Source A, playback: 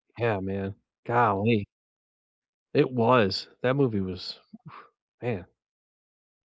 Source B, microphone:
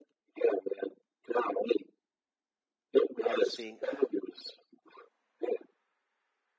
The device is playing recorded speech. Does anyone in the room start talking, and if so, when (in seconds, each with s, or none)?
3.2 s